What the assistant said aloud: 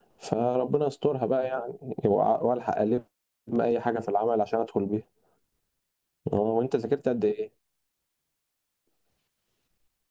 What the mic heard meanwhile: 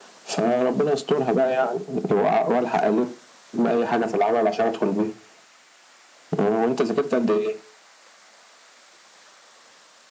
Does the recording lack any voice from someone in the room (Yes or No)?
Yes